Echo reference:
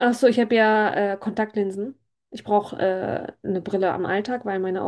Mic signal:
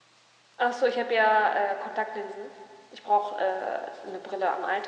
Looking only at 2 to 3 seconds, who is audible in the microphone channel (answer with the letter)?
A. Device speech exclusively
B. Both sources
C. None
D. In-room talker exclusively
A